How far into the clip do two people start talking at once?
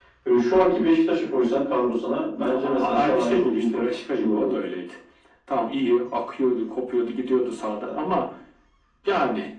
2.5 s

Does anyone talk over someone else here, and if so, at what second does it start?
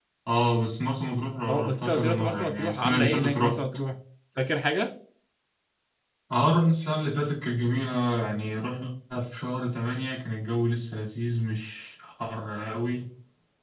1.5 s

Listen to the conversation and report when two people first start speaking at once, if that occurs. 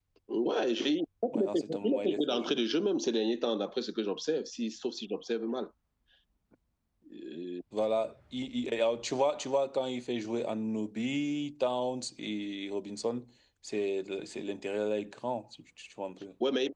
1.3 s

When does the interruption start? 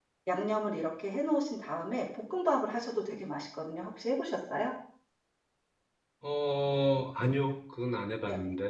none

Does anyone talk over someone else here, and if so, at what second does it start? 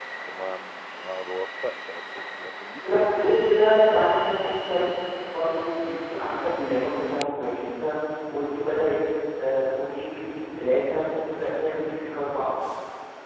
2.8 s

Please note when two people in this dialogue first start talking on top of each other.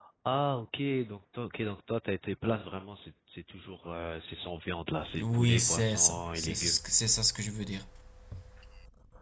5.0 s

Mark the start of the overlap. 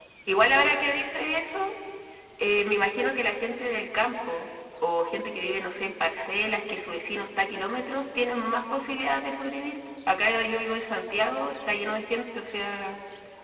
none

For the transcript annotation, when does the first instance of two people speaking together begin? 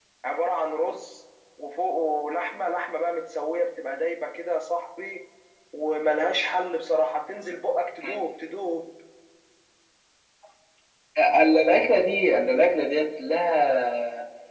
none

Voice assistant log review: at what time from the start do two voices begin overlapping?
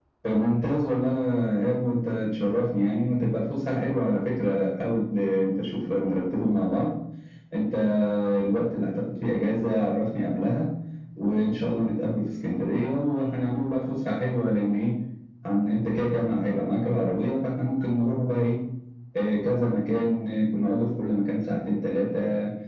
none

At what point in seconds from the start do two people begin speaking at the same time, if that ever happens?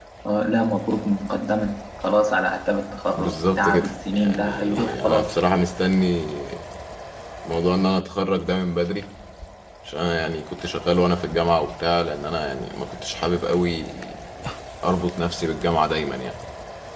3.1 s

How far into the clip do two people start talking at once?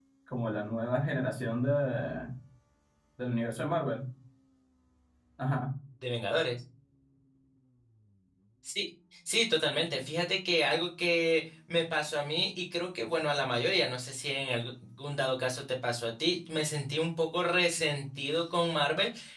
none

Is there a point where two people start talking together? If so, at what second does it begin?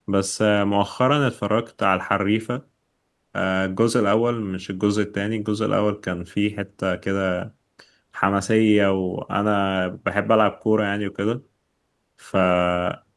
none

